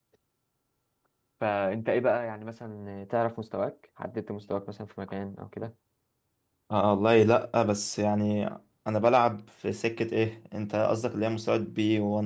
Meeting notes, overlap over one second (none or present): none